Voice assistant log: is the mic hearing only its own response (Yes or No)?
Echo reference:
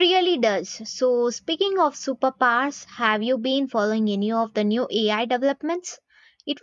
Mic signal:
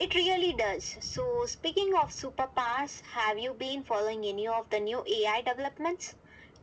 Yes